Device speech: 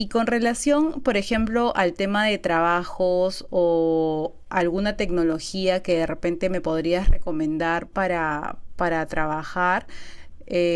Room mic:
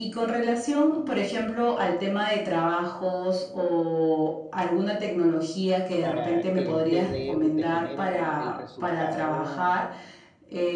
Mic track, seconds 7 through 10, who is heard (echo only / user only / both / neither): both